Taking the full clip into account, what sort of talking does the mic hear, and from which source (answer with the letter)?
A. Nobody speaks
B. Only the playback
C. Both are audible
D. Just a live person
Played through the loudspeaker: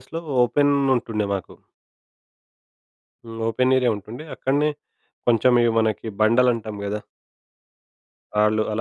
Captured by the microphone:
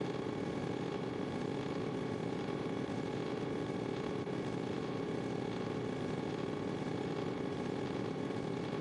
A